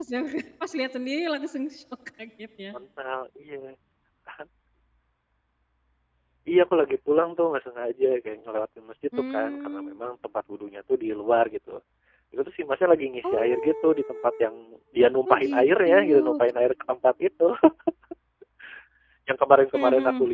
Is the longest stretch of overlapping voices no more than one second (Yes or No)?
No